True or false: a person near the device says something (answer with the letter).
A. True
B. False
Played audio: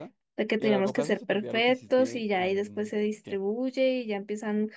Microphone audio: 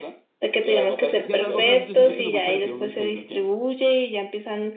A